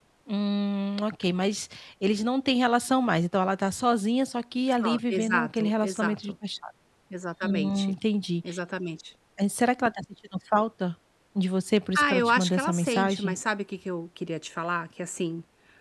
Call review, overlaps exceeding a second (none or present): present